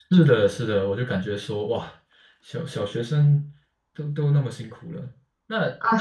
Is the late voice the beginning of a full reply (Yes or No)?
Yes